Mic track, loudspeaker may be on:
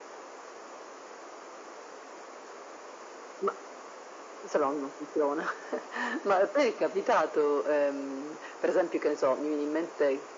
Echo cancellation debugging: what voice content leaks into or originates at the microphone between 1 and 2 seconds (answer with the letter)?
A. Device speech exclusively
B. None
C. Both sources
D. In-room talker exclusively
B